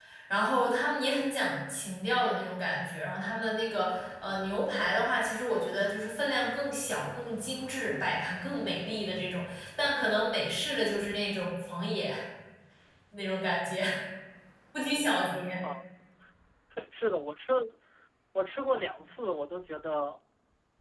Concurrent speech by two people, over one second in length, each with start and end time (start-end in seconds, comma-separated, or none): none